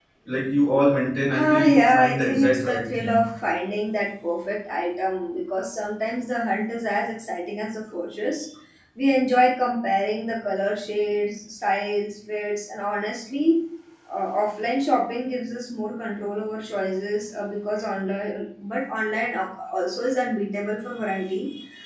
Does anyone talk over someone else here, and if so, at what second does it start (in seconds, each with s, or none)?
1.3 s